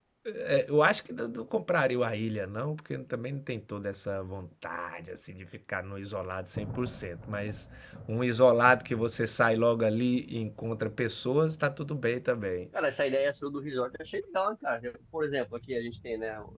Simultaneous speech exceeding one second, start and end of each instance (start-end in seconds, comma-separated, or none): none